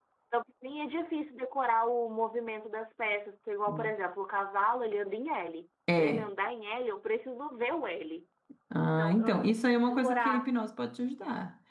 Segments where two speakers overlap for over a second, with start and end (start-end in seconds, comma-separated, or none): 9.0-10.5